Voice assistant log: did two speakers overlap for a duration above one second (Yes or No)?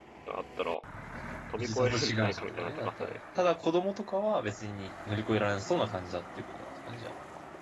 Yes